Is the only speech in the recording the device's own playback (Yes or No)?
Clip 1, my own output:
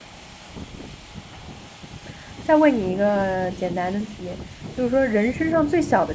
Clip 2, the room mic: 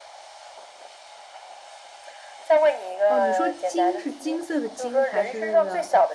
No